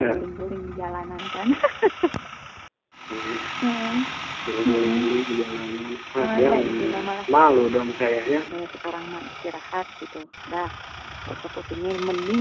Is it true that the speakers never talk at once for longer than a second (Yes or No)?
No